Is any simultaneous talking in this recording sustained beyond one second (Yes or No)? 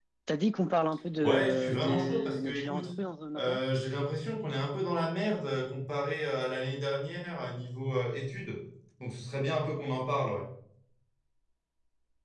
Yes